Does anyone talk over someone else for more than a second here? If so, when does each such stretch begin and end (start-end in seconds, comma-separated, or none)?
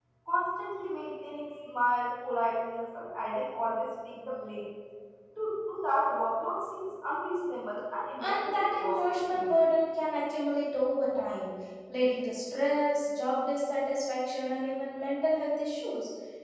8.2-9.5